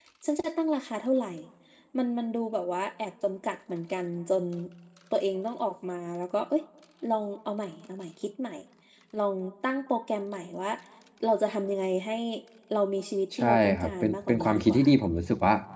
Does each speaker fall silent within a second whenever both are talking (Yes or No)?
No